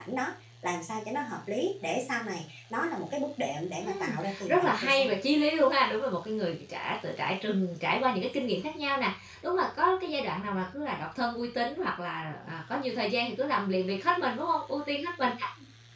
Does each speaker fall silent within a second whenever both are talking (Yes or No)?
No